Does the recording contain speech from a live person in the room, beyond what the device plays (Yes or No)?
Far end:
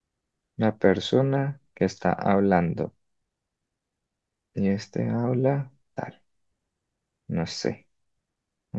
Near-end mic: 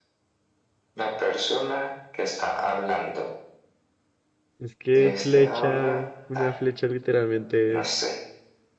Yes